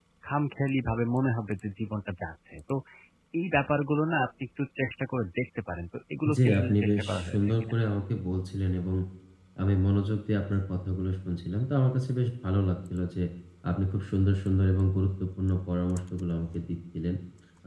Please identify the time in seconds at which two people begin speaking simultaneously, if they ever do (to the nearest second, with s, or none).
6 s